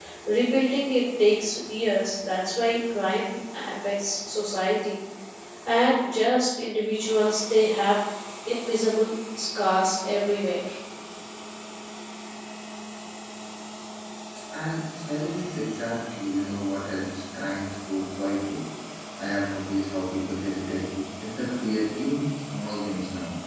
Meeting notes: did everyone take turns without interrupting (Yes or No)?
Yes